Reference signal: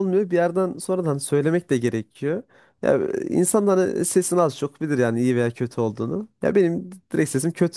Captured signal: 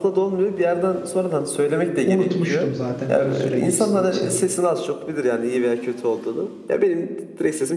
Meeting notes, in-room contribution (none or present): present